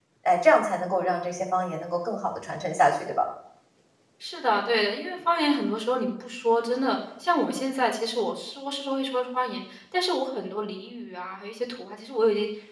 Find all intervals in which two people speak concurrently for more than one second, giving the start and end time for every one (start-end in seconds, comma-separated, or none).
none